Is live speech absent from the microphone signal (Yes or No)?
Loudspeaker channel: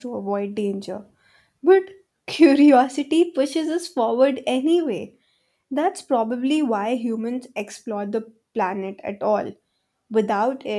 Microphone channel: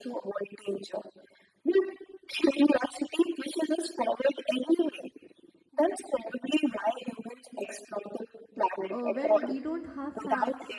No